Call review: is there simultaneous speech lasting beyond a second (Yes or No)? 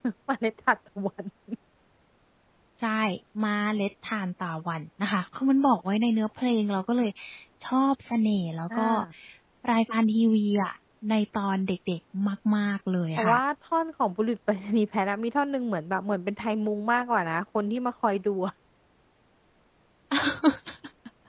No